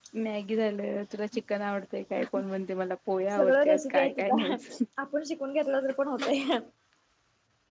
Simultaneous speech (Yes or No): Yes